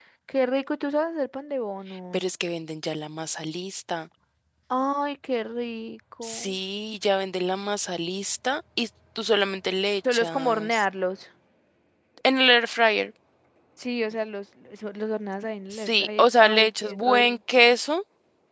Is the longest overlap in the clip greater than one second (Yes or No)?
Yes